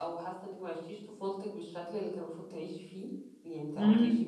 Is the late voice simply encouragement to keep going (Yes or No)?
No